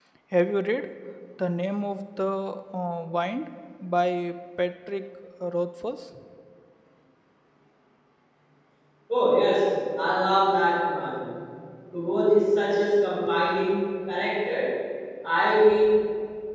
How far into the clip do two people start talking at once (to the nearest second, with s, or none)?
none